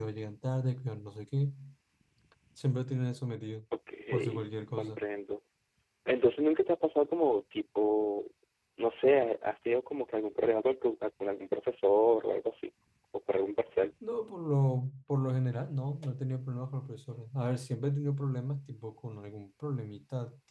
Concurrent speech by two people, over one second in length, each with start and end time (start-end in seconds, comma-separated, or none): none